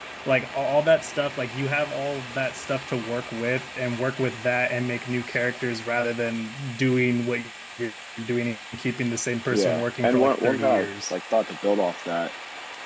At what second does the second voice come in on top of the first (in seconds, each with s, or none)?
9.5 s